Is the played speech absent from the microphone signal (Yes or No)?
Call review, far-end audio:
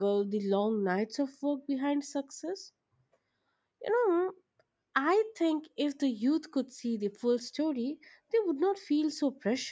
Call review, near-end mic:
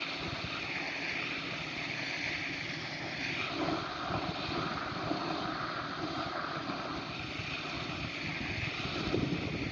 Yes